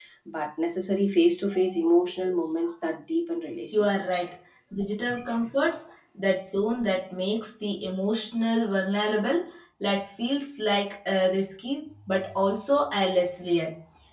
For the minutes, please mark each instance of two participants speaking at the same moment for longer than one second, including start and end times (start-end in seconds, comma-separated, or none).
none